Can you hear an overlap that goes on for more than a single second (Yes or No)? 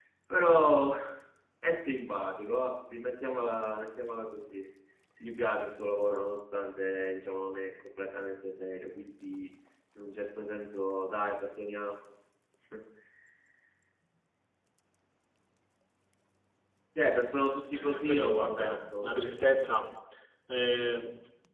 Yes